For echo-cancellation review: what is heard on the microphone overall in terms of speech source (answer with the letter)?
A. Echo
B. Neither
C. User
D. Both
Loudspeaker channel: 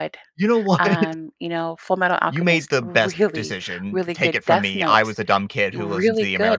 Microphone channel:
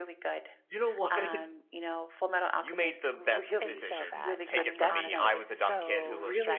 D